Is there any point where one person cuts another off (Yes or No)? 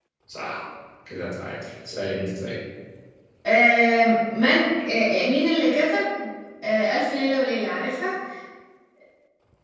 No